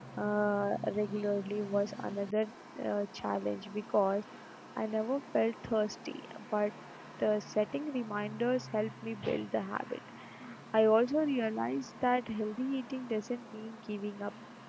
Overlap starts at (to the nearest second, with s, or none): none